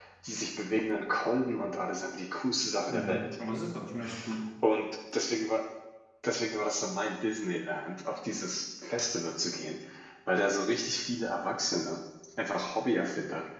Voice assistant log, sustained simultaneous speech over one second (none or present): none